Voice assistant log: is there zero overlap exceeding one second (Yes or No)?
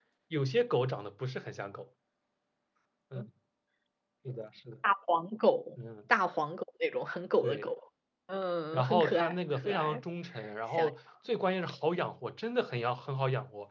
No